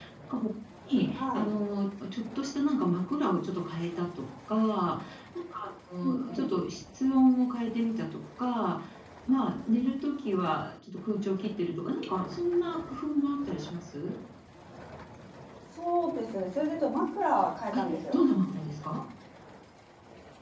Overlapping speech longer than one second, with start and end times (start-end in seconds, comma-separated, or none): none